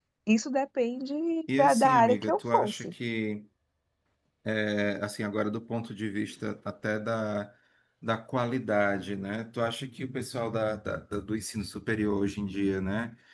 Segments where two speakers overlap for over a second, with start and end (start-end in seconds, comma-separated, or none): 1.6-2.9